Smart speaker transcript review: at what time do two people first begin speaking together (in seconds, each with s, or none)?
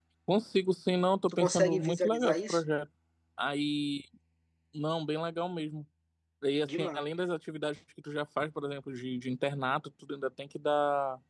1.3 s